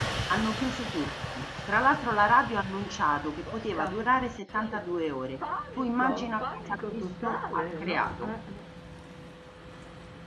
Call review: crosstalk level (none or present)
present